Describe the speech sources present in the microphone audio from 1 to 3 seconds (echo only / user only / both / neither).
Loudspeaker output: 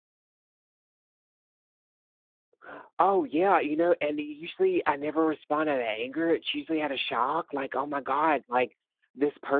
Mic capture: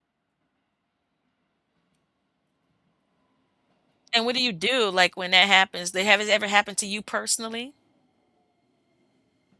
neither